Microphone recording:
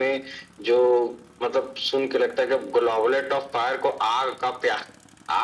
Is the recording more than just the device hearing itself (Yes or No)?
No